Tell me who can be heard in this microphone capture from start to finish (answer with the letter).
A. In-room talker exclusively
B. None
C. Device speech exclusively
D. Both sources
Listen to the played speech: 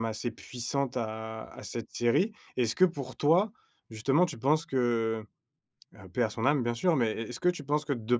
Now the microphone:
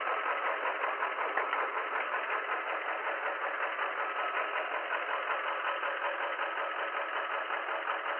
B